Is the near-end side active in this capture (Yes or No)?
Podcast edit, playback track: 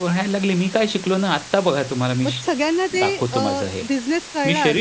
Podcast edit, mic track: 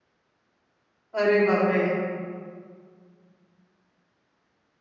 Yes